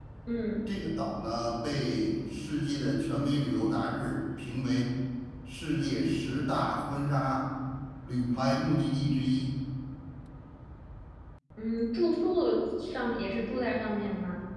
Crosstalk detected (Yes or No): No